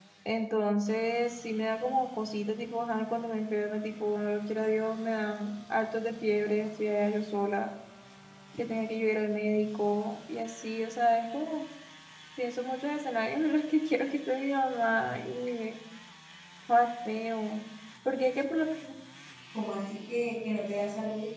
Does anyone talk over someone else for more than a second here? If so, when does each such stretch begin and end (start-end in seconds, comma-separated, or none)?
none